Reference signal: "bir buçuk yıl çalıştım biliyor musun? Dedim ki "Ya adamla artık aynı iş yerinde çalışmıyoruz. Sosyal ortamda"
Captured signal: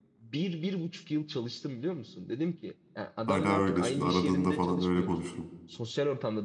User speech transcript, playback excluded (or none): Hala öyle şimdi aradığında falan öyle konuşurum.